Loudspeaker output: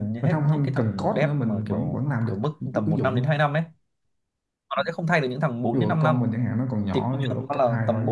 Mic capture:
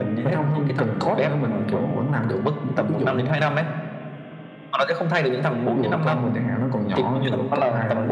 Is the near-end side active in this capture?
No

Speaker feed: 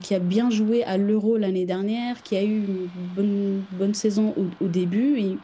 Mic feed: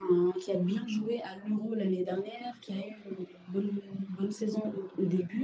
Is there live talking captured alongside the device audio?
No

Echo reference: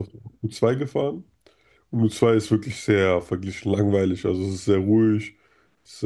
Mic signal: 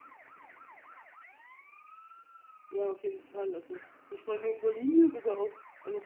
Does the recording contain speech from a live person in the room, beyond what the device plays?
Yes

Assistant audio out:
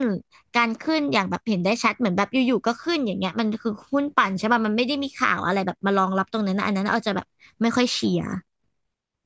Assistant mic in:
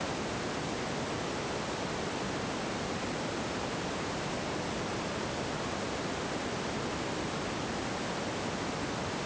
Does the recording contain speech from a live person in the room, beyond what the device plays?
No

